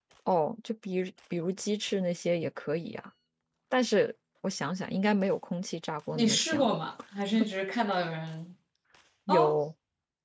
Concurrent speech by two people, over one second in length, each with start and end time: none

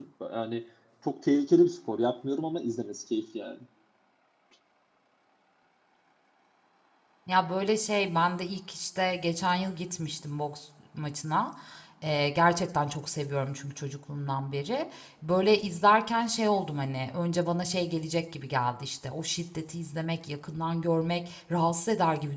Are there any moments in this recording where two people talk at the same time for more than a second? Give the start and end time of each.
none

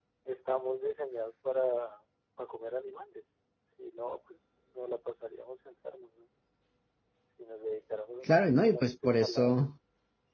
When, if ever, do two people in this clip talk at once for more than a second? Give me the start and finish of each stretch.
8.2-9.6

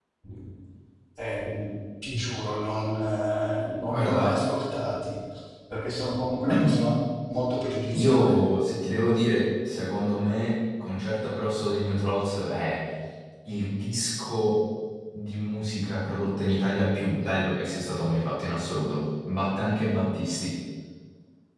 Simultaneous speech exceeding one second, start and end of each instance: none

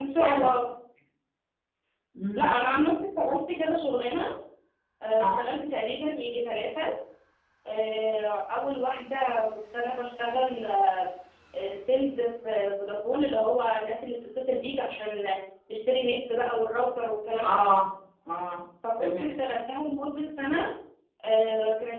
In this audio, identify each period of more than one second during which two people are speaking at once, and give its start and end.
none

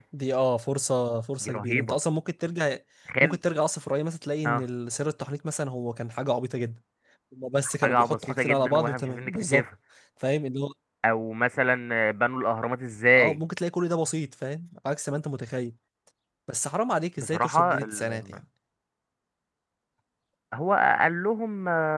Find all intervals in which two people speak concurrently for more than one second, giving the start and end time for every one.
7.6-9.6, 17.2-18.4

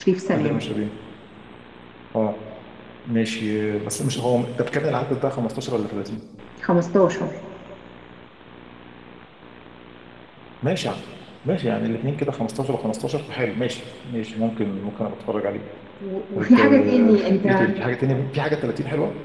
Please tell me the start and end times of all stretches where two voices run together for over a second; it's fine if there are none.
16.4-17.7

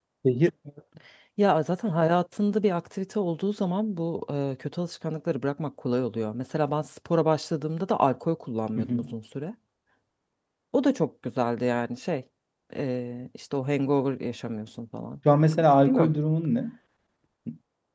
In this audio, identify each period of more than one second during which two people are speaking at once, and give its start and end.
none

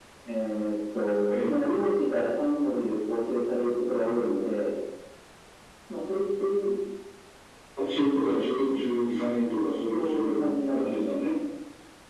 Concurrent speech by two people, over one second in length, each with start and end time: 9.9-11.2

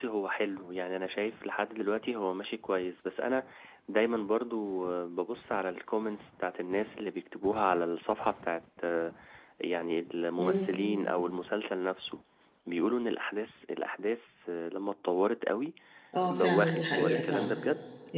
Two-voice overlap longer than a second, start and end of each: 16.2-17.6

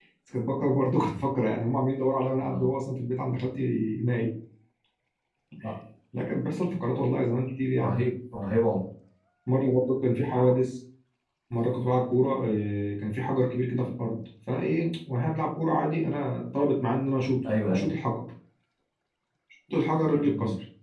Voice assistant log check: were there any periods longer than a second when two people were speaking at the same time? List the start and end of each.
none

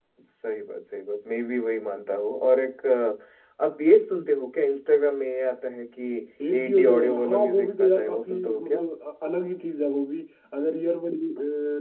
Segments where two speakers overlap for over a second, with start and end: 6.5-8.8

